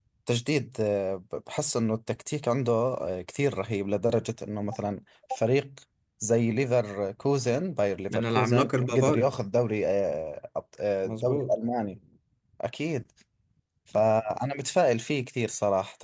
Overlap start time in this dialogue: 8 s

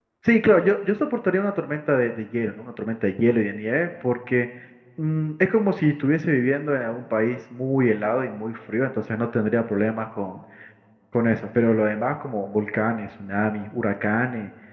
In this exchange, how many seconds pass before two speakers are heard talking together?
none

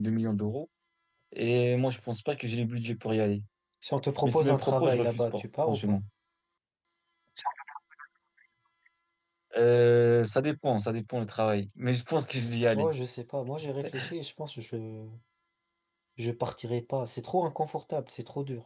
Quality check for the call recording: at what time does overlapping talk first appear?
4 s

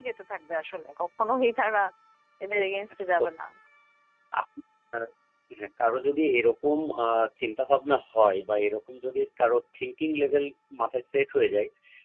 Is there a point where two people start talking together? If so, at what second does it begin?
none

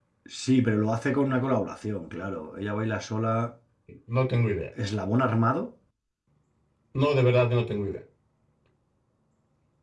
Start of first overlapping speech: none

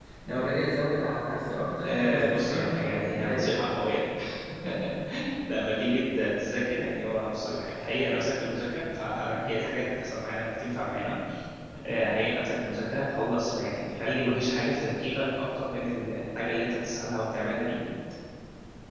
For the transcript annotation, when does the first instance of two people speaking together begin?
2 s

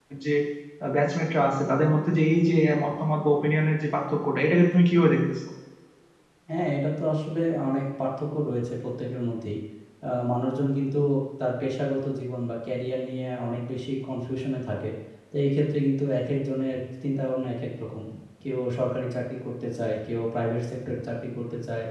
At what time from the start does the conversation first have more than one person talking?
none

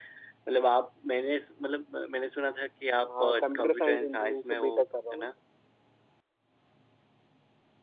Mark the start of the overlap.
3 s

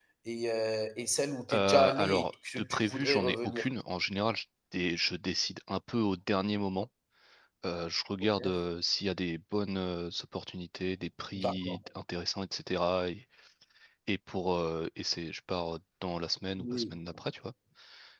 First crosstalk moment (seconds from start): 2 s

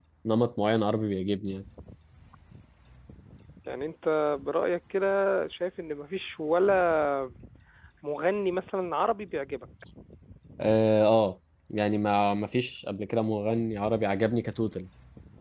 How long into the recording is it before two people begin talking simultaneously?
none

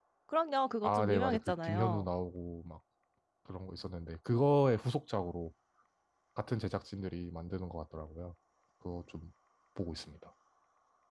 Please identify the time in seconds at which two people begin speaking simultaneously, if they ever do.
1 s

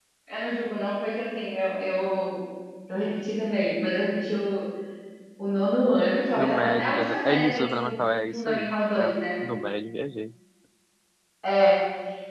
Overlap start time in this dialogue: 6 s

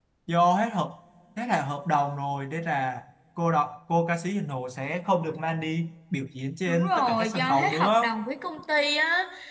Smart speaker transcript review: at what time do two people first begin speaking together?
7 s

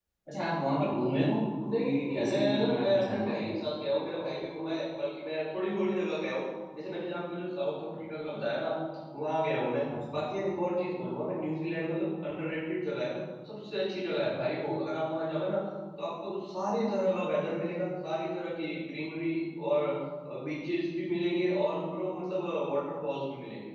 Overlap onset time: 2 s

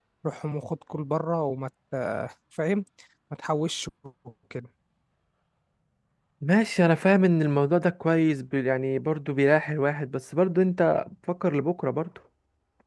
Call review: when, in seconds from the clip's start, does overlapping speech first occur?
none

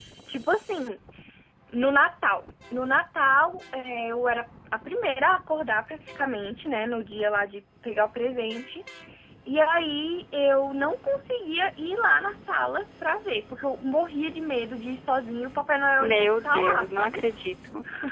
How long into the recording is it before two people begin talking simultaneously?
16 s

